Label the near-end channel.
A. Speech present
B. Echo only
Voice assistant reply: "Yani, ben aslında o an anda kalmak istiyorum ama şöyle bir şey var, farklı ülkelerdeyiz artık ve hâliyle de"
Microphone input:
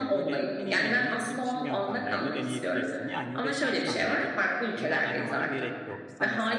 A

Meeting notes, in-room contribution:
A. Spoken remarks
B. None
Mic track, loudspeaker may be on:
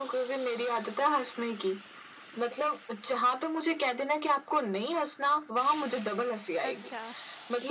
A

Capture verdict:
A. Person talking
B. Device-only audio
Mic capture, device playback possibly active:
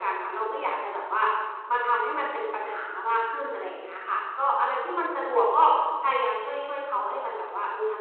B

